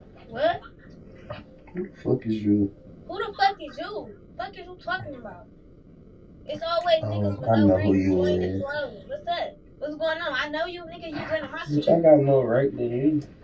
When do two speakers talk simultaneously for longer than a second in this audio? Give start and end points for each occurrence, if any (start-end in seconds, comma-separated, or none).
7.0-8.6